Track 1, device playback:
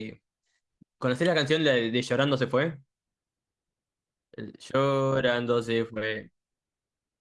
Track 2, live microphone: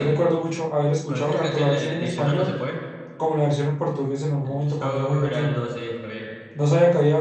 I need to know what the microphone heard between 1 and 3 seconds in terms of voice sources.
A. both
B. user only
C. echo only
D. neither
A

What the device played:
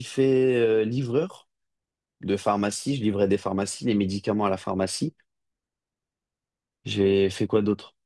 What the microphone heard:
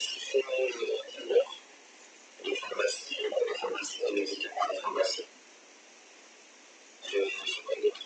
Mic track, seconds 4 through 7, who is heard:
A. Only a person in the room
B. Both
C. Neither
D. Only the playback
D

